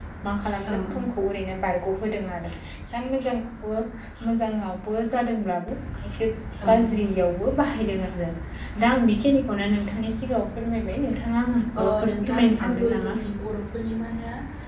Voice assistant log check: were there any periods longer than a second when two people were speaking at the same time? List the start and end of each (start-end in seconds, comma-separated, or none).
11.8-13.2